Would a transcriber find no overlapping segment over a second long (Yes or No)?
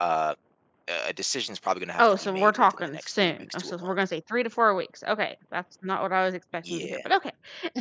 No